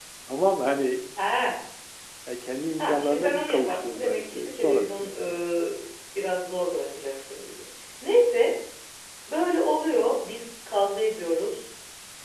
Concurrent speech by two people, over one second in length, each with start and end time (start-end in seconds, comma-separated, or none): 2.8-5.4